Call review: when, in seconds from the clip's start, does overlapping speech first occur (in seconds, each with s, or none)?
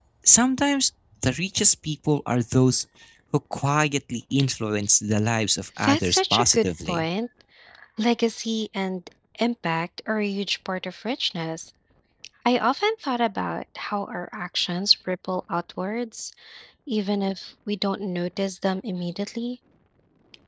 5.8 s